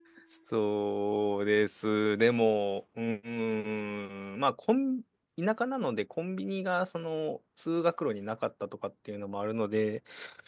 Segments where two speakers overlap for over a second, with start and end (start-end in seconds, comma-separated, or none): none